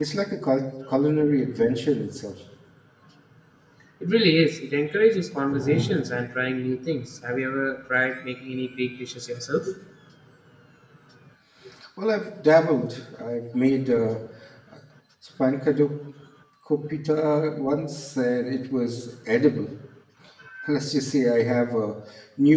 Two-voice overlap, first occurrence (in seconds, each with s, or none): none